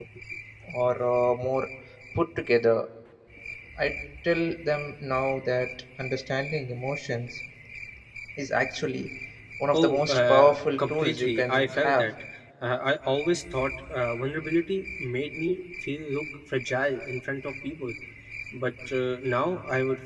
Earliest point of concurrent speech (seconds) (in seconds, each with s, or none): 9.7 s